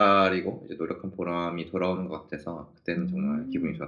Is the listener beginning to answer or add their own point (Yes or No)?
Yes